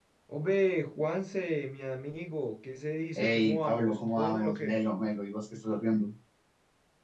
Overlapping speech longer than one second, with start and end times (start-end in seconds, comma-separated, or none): 3.2-4.8